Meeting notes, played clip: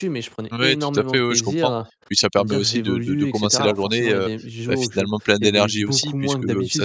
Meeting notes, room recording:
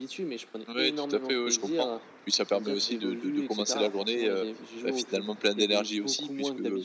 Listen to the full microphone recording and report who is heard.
echo only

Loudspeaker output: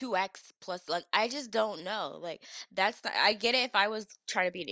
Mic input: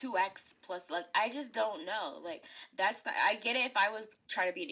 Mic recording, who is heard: echo only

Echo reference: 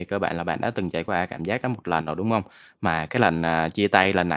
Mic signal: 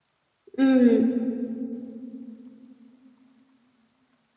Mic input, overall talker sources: user only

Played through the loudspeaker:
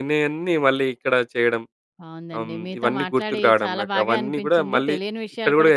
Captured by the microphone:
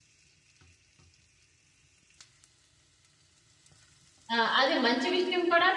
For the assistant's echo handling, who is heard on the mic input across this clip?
user only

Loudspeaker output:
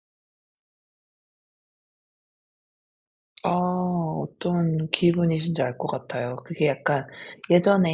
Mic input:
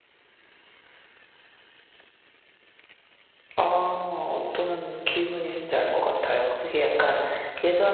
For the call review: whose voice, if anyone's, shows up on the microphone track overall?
echo only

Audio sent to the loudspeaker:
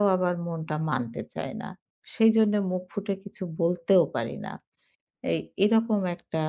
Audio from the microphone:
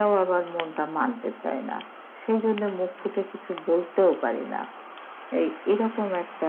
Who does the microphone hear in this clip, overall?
echo only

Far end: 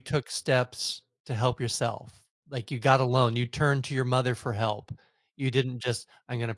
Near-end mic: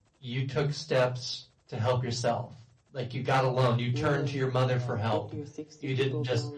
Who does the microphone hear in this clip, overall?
both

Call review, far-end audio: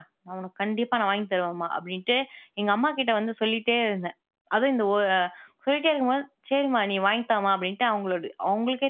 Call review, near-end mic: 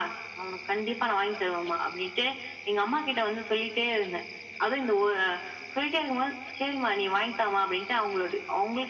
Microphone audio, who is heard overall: echo only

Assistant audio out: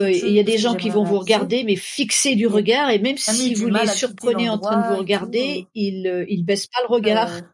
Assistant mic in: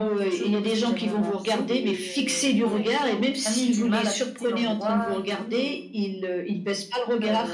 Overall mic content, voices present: both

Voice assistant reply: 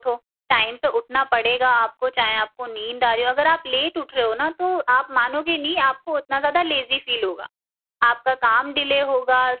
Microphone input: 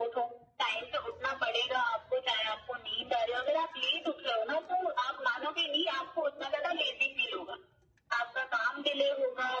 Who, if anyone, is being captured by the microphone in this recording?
echo only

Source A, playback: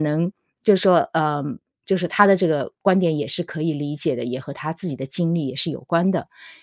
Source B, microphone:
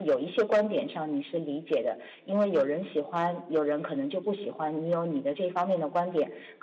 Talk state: user only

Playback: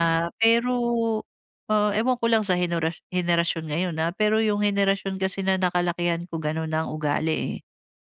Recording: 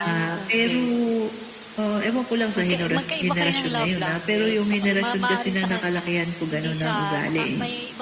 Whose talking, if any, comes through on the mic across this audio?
both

